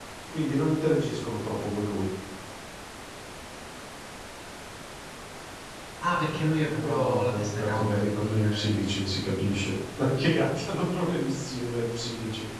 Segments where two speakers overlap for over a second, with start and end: 6.8-9.1

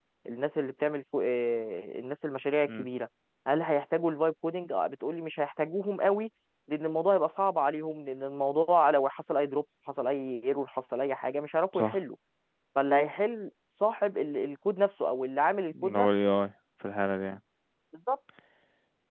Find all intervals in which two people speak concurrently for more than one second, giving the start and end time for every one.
none

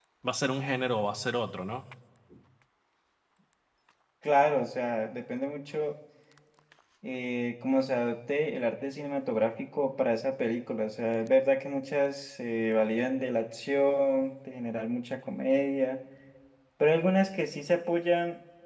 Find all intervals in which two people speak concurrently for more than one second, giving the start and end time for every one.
none

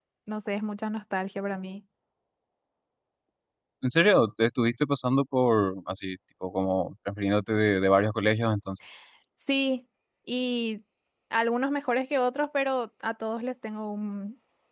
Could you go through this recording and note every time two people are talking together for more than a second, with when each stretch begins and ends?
none

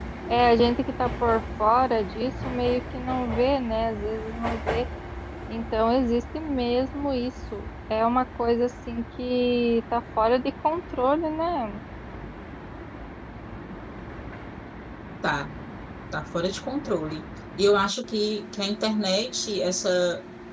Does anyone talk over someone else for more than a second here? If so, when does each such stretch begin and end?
none

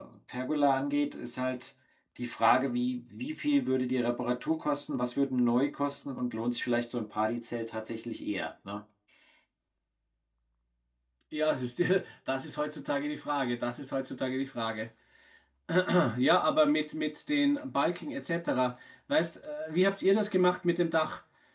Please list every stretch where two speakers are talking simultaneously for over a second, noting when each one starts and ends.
none

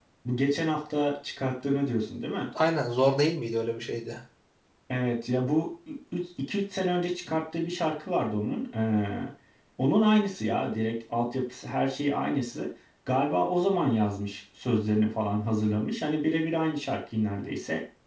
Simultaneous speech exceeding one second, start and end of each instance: none

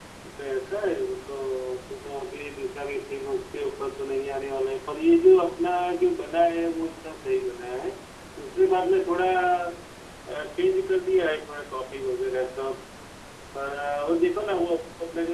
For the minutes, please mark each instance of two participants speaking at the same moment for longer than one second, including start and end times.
none

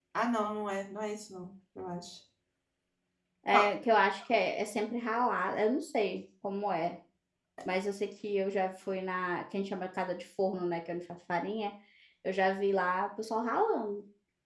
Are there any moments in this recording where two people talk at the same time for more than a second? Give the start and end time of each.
none

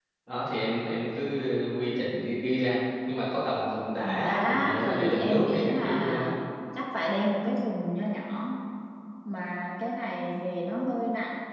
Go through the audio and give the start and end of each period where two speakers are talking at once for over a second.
4.0-6.3

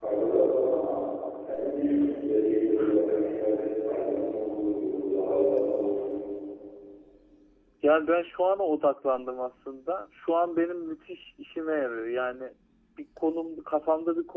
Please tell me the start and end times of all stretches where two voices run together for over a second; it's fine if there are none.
none

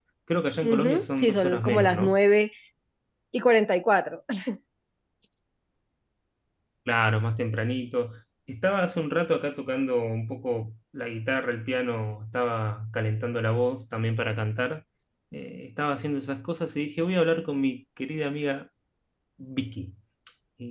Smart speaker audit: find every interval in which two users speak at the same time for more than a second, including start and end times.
0.6-2.2

